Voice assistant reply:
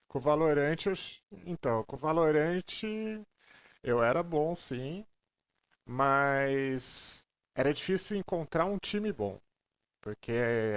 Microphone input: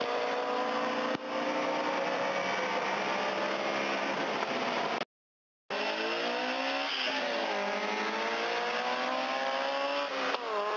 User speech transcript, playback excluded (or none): none